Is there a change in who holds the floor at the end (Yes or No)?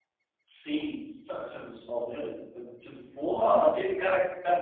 Yes